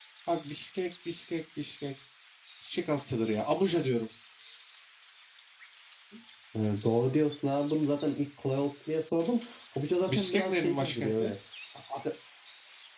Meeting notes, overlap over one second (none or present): present